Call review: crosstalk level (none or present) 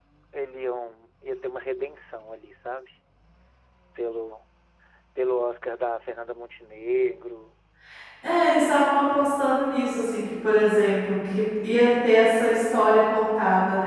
none